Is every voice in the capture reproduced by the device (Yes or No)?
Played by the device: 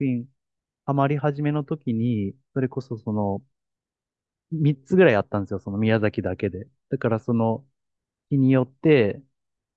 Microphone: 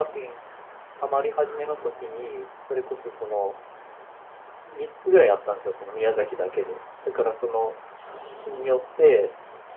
Yes